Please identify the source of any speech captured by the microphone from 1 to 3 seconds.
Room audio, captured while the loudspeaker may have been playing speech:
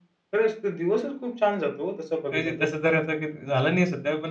both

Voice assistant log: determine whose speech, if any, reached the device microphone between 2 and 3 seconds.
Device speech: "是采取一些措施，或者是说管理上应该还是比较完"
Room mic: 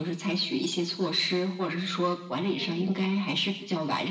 both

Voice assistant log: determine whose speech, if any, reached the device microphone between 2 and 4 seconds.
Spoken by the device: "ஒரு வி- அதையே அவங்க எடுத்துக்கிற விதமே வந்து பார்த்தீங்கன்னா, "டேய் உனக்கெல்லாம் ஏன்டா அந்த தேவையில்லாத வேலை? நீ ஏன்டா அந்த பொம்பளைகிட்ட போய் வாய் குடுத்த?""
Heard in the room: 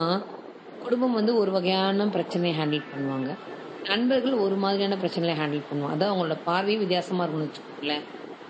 user only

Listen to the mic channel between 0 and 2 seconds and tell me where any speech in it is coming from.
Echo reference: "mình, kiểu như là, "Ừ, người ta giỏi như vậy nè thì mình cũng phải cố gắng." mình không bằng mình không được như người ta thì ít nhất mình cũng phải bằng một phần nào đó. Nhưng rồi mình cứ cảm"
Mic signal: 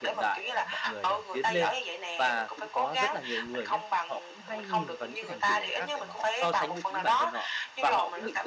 both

